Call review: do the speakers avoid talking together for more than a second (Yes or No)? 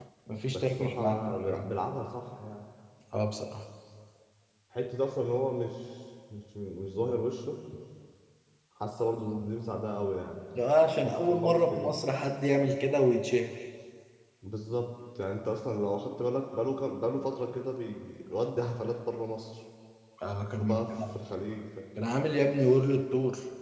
No